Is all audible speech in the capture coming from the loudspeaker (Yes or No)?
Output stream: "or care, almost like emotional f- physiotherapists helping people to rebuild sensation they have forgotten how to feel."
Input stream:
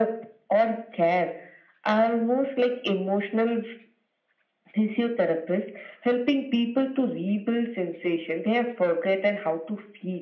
Yes